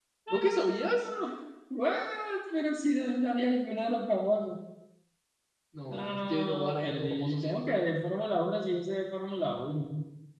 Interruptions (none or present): present